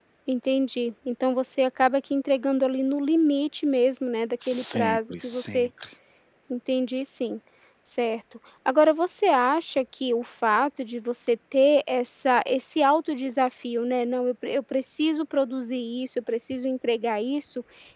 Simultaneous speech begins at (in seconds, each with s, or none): 4.4 s